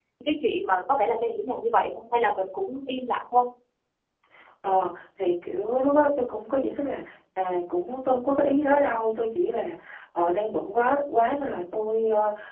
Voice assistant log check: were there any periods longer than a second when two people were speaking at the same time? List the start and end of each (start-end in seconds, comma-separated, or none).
none